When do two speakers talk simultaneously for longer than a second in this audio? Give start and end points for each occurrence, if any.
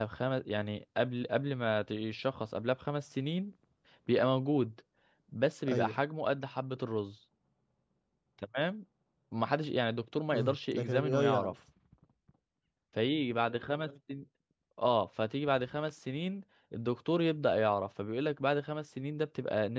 10.3-11.5

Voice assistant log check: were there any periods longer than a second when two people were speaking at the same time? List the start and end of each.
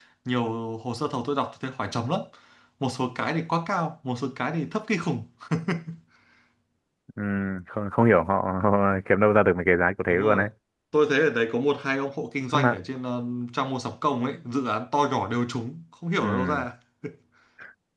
none

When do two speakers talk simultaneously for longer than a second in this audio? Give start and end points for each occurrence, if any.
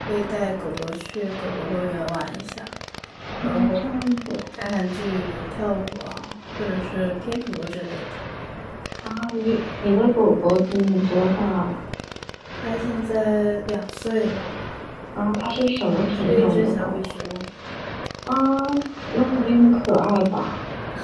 15.8-17.1

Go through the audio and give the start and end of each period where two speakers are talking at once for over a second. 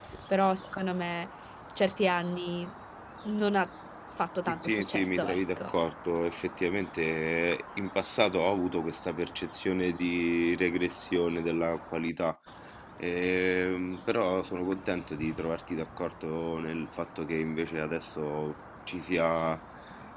4.5-5.7

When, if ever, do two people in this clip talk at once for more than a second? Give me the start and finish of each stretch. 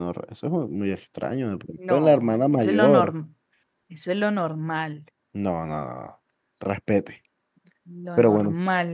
1.9-3.1

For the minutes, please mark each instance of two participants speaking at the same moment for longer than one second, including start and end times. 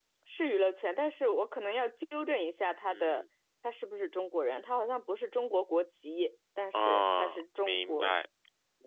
6.7-8.1

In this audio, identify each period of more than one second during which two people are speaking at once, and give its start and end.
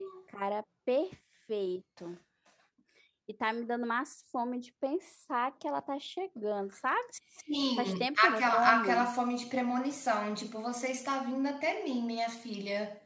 7.8-9.1

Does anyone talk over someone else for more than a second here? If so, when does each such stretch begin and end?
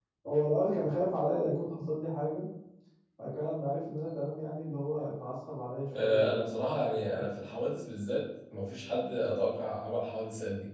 6.0-7.3

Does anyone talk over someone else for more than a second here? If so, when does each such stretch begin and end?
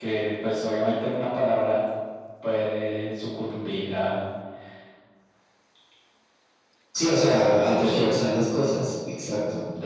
7.0-8.2

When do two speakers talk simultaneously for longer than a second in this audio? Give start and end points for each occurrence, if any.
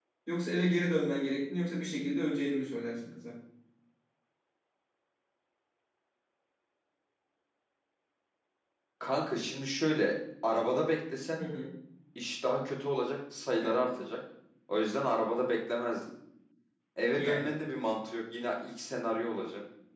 none

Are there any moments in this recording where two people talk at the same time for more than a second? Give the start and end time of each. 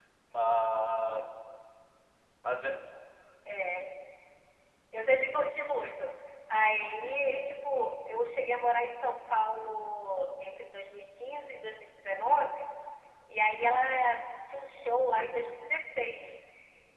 none

